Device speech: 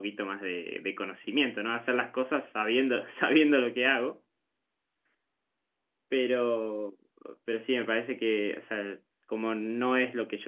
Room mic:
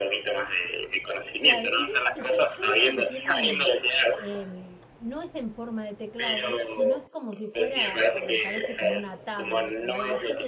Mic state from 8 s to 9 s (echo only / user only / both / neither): both